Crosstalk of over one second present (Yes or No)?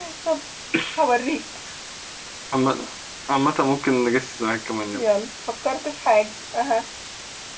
No